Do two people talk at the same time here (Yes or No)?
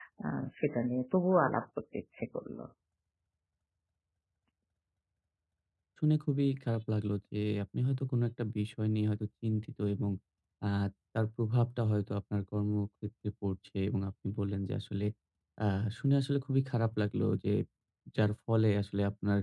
No